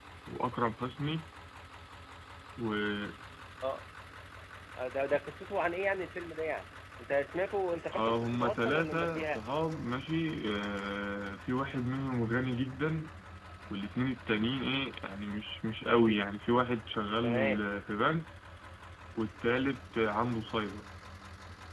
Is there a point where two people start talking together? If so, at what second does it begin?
7.9 s

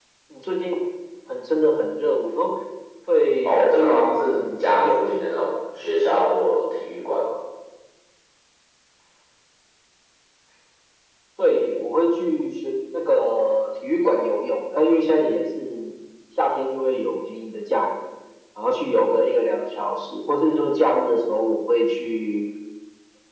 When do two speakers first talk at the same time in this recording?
3.4 s

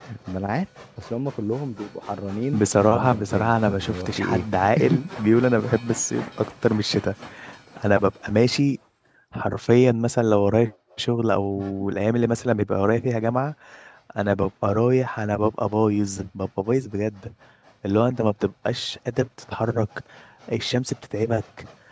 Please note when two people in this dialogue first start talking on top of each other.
2.5 s

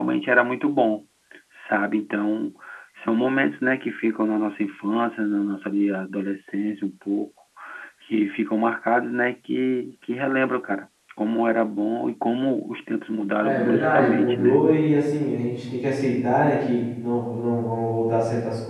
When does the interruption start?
13.4 s

